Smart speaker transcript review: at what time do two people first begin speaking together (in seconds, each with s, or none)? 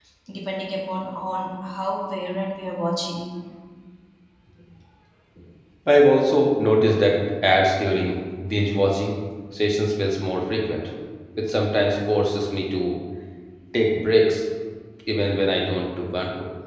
none